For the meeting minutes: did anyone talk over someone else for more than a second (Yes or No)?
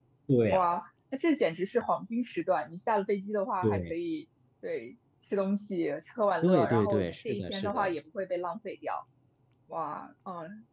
Yes